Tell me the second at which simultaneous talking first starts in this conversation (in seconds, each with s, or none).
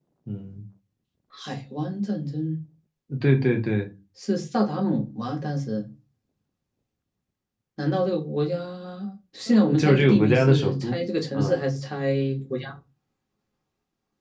9.5 s